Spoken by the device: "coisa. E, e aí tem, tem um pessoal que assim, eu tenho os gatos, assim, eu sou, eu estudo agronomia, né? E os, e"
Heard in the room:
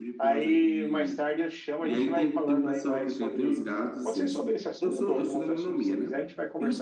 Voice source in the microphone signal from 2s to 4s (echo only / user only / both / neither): both